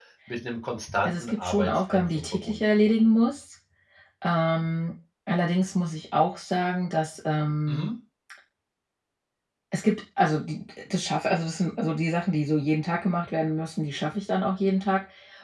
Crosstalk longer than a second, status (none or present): present